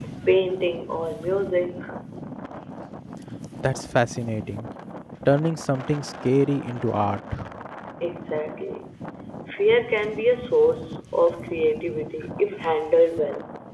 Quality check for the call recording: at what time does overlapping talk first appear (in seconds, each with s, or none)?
none